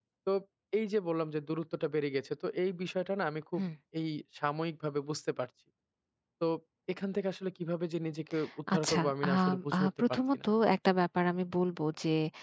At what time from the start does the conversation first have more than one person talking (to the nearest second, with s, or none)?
9 s